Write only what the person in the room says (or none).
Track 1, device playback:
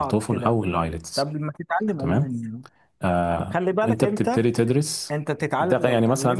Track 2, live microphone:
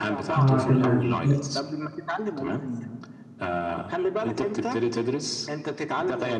اه تمام